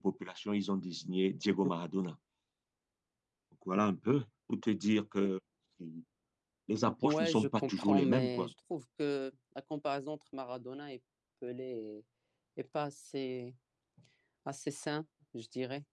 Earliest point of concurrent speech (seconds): 7.0 s

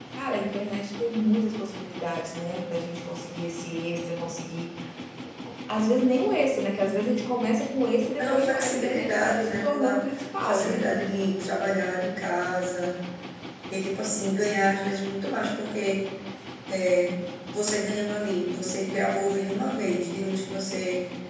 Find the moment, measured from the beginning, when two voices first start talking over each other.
8.2 s

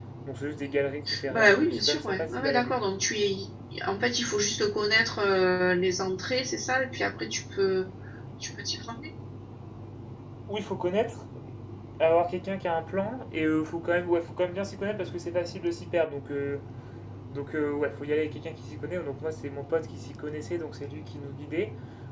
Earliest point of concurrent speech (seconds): 1.3 s

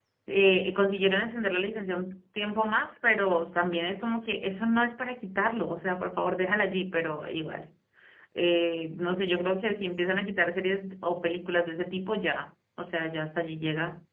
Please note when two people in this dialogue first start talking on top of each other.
none

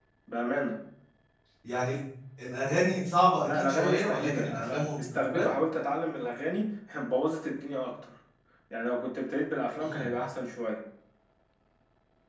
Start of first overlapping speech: 3.5 s

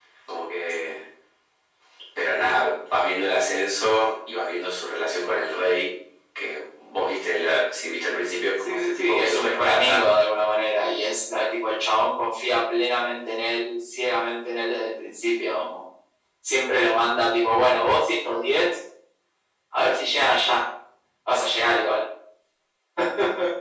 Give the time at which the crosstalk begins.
8.6 s

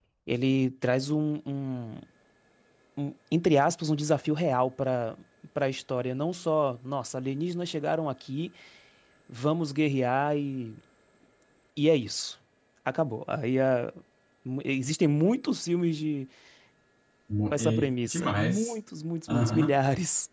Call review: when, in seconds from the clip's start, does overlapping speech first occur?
17.5 s

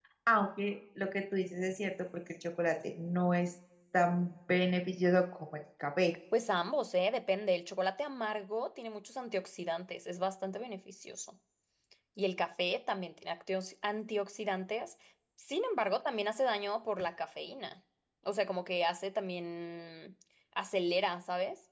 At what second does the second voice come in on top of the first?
none

